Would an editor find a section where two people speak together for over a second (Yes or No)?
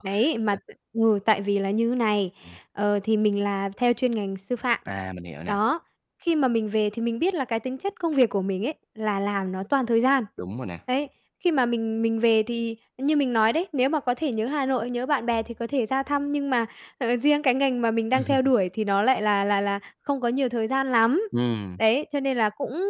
No